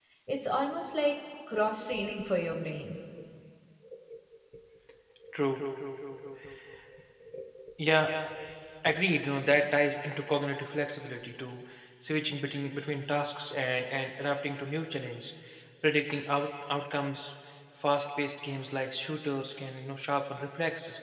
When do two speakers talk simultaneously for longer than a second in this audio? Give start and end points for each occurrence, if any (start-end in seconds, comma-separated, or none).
none